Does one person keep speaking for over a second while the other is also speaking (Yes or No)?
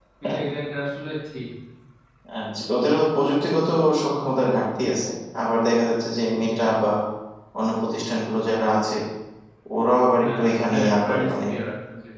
Yes